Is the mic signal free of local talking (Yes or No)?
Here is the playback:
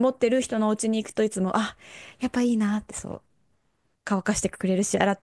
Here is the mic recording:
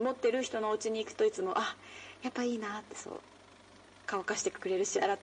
Yes